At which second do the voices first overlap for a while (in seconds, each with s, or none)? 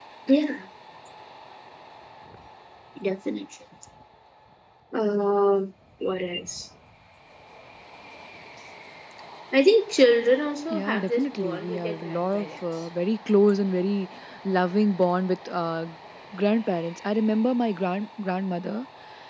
10.7 s